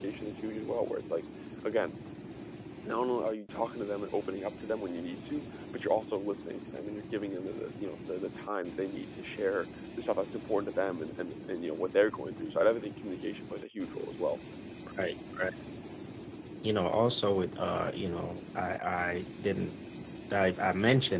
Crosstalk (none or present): none